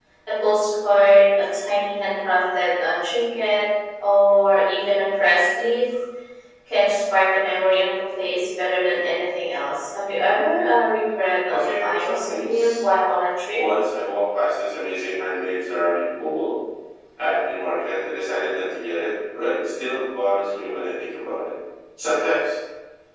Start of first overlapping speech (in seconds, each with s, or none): 11.5 s